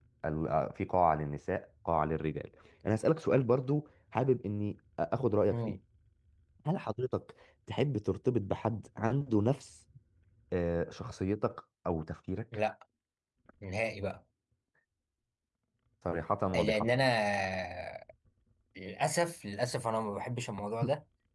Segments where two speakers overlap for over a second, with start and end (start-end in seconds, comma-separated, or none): none